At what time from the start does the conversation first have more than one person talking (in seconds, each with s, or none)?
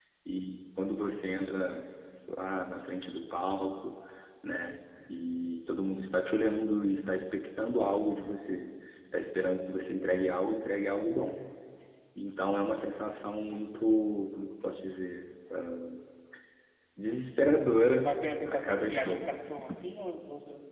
18.0 s